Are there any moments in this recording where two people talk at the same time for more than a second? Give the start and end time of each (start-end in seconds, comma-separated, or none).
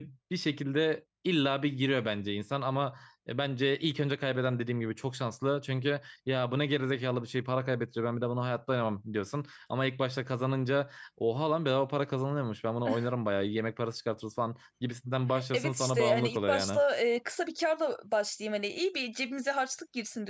15.5-16.8